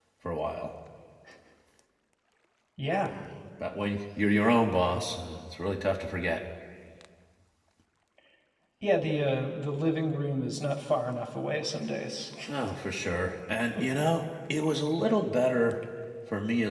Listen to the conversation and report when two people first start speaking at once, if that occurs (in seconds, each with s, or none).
none